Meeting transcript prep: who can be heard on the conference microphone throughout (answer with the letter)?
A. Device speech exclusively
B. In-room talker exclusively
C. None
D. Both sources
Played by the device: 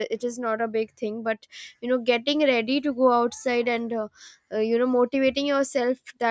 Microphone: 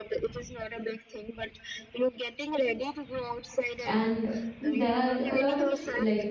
D